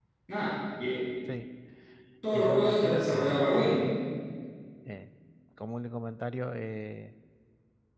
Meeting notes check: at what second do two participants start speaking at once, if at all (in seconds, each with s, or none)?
2.3 s